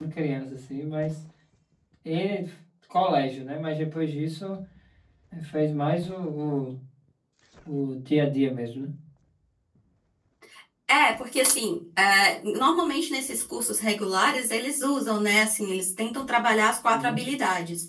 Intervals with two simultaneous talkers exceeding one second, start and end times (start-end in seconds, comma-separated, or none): none